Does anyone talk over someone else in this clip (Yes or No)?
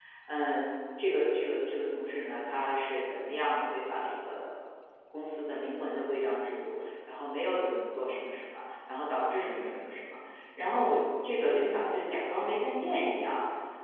No